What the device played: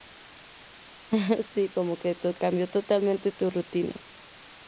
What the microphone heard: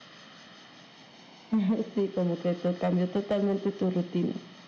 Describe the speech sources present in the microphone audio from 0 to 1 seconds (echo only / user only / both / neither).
neither